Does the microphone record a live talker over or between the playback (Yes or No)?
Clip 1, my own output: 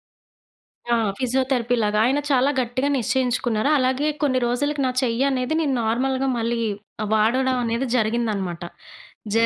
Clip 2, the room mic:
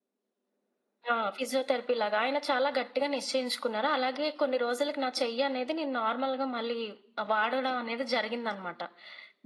No